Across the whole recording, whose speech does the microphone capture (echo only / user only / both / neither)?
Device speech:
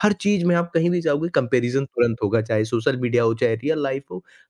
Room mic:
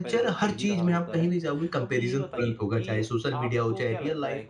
both